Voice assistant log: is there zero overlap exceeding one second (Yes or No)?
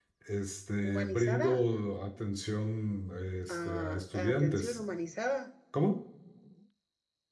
No